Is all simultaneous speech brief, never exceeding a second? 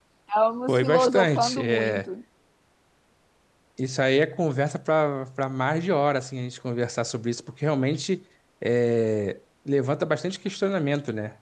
No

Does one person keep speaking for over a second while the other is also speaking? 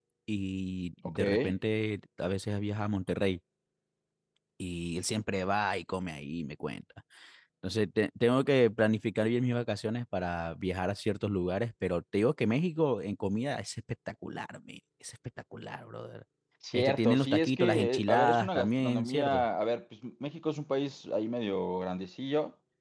Yes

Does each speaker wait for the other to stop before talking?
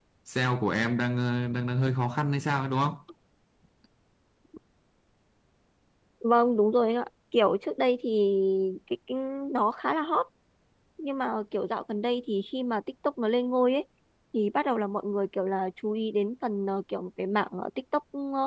Yes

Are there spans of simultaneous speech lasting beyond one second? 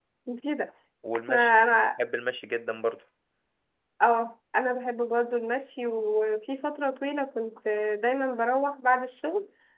No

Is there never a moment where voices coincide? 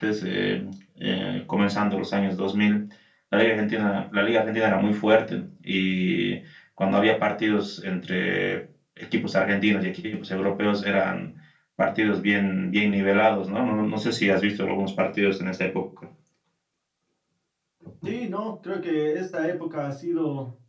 Yes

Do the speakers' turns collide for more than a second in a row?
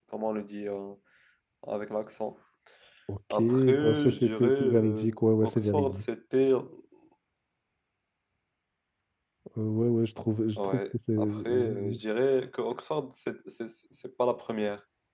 Yes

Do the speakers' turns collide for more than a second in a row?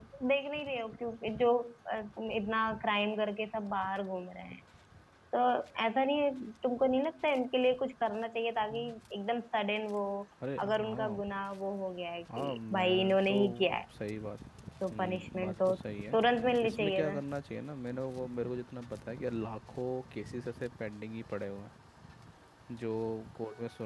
Yes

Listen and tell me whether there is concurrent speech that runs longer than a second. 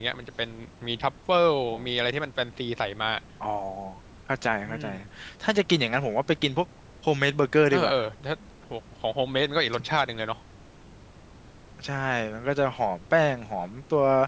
No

